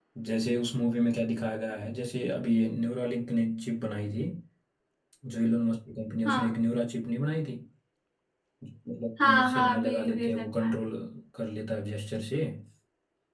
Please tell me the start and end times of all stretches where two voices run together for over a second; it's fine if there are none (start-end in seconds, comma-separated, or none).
9.2-10.8